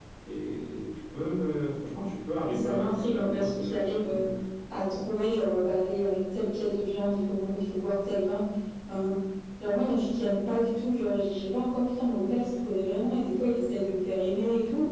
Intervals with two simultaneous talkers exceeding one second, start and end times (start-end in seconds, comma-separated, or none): 2.4-4.2